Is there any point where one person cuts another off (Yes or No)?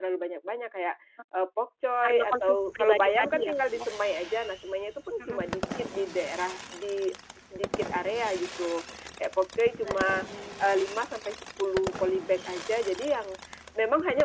Yes